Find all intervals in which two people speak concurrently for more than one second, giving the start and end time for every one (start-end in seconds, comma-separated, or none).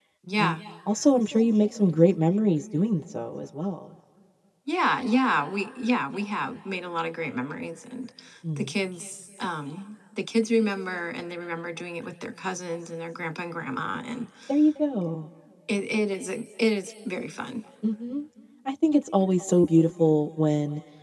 none